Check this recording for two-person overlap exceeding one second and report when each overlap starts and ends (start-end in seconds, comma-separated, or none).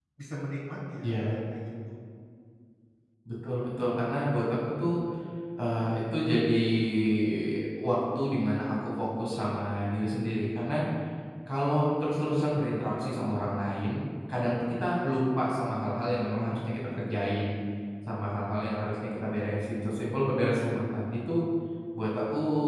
none